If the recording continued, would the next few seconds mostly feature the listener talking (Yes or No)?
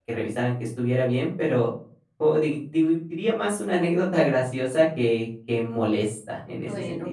Yes